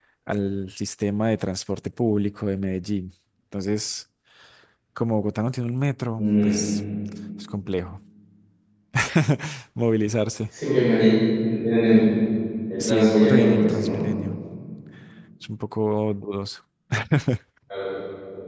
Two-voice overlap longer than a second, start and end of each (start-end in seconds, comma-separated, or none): 12.8-14.0